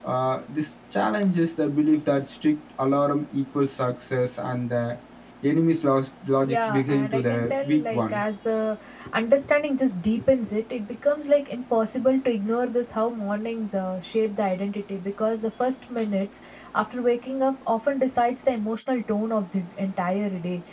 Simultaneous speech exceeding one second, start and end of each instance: 6.4-8.2

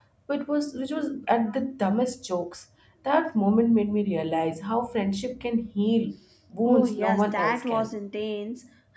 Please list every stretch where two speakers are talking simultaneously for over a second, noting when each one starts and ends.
6.7-7.9

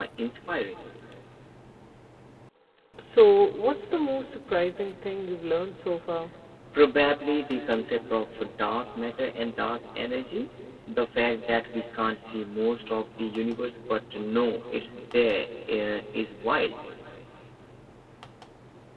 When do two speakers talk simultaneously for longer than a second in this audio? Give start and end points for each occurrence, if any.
none

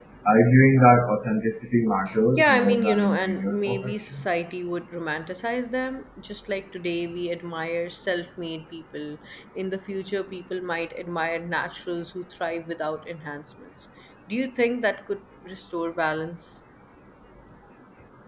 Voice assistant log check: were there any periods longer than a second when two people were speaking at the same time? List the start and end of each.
2.4-4.2

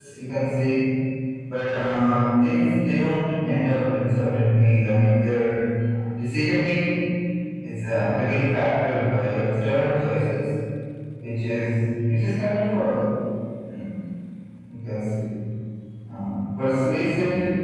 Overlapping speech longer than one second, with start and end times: none

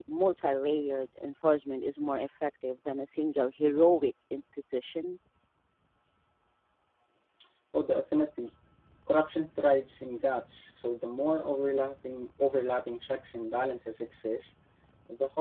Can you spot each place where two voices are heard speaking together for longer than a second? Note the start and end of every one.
none

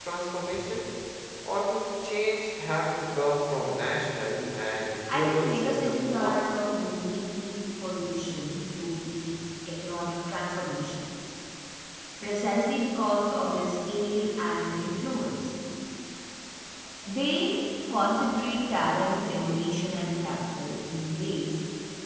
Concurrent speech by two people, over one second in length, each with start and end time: 5.1-6.5

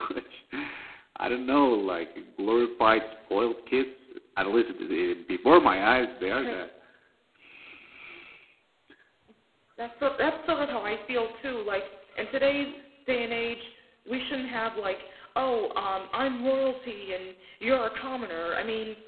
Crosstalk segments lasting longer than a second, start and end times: none

